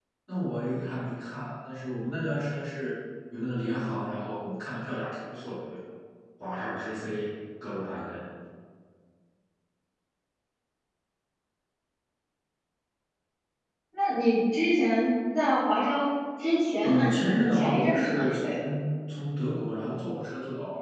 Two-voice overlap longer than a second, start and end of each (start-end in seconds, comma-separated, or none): 16.8-18.5